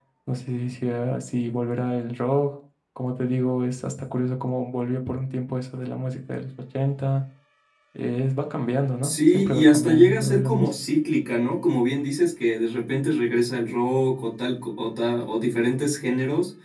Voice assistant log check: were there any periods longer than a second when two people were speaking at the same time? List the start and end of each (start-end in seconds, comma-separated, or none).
9.0-10.7